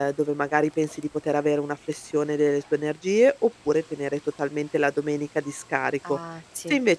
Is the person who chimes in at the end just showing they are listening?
Yes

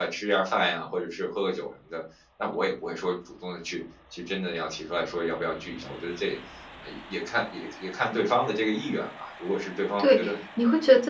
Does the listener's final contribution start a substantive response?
Yes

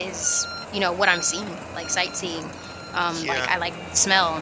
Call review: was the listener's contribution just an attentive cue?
Yes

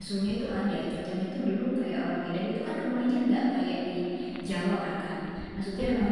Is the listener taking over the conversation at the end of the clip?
No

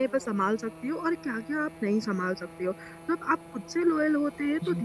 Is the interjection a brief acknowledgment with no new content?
Yes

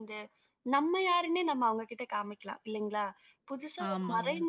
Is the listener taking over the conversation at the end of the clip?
No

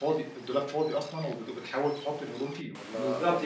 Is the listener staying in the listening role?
No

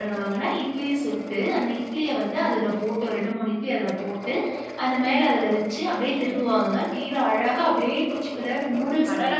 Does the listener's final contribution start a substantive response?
Yes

